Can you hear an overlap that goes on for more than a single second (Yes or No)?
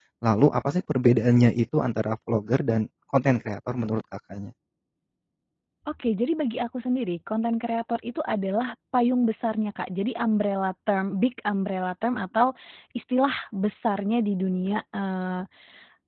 No